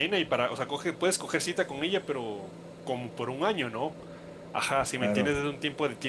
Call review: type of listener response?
listening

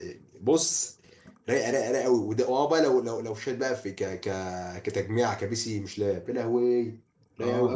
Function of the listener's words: taking over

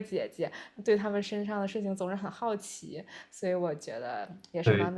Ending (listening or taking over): taking over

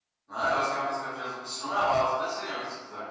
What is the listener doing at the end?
taking over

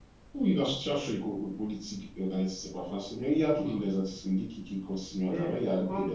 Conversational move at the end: taking over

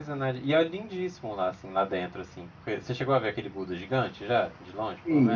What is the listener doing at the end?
taking over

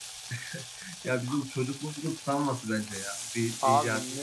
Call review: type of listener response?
taking over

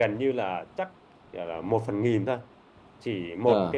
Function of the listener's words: listening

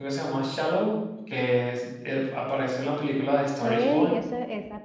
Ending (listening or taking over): taking over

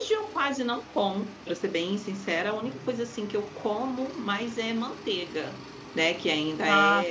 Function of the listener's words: listening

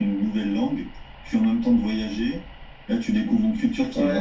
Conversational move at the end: taking over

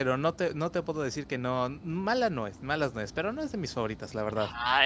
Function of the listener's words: taking over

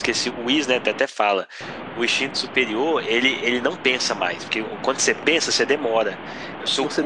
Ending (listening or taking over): listening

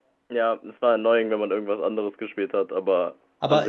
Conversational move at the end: taking over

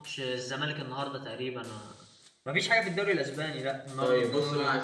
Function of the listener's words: taking over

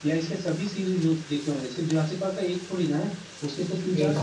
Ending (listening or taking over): taking over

